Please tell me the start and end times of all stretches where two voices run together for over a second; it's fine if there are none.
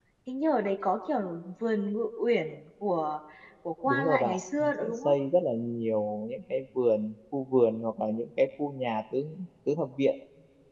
3.9-5.2

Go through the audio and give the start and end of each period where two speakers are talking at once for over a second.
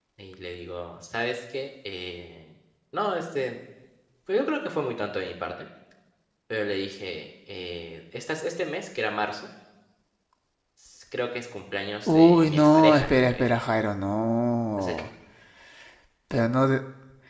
12.1-13.6

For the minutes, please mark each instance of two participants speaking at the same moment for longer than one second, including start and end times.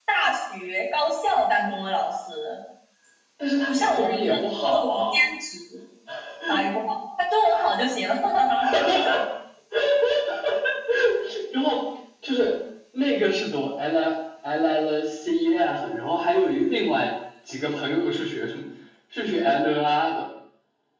3.7-5.0

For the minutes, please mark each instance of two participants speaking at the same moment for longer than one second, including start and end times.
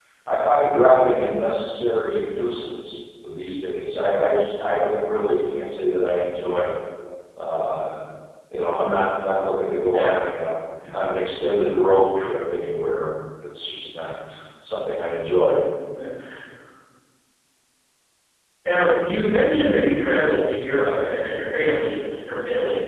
none

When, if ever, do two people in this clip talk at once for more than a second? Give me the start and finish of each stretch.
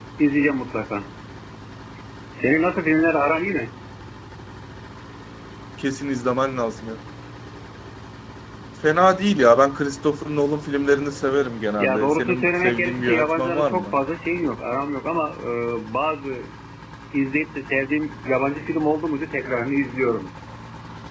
11.8-13.9

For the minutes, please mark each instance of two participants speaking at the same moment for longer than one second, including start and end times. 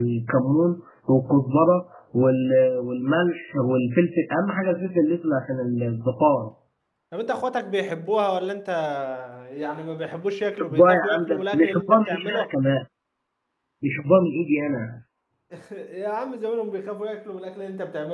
10.6-12.5

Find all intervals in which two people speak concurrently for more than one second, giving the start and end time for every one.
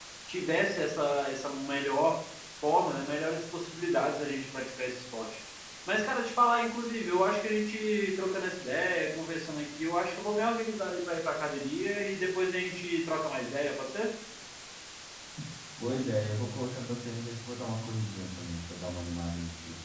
none

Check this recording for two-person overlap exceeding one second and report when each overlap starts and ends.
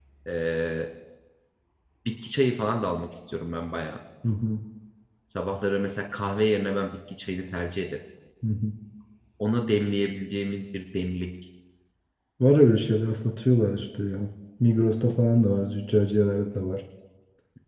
none

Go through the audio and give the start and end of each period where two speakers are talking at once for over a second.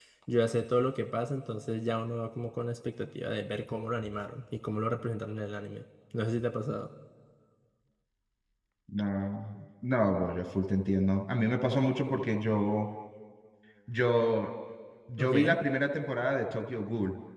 none

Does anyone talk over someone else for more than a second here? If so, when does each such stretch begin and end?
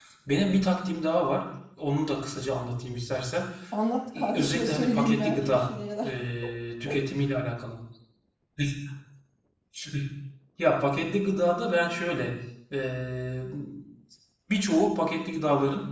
4.2-5.6

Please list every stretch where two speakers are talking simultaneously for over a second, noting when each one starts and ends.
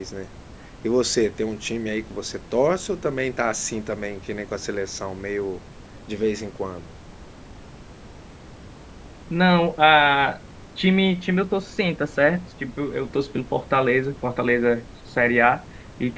none

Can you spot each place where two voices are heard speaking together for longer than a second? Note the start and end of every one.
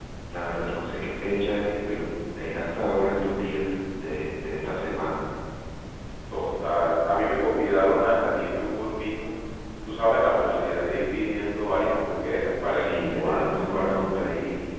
12.6-14.1

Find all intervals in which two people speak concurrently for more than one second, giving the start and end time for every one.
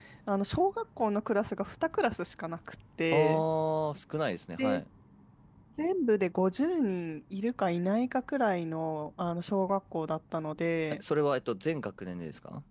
none

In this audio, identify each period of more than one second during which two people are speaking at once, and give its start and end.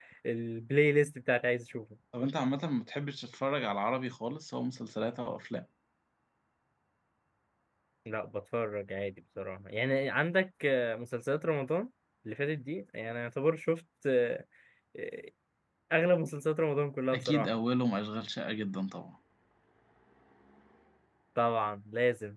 none

